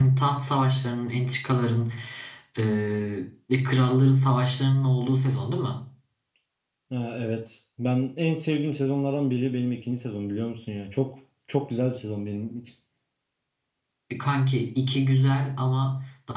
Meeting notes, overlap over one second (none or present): none